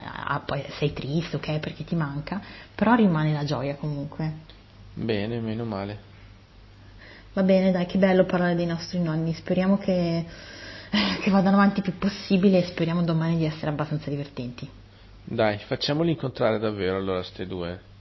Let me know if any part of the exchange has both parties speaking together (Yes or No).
No